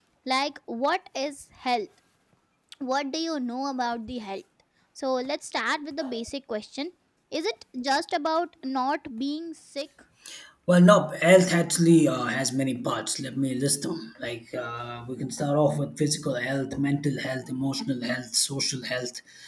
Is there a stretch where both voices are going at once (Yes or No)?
No